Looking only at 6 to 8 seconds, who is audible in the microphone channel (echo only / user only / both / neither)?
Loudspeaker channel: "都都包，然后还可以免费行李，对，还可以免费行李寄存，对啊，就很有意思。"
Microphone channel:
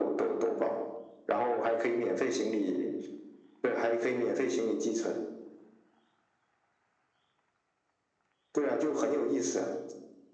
neither